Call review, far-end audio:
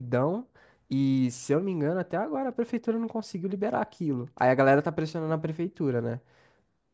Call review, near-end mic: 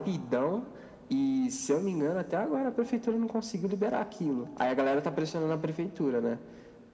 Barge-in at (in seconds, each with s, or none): none